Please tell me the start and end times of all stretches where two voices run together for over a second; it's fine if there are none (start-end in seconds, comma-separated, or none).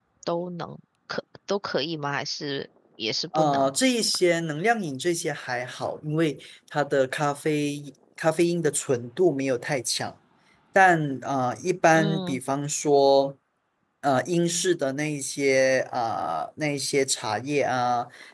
none